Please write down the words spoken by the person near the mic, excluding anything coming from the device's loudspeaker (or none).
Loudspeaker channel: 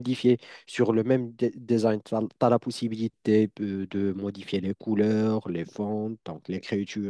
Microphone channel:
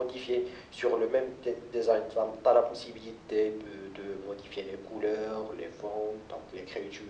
none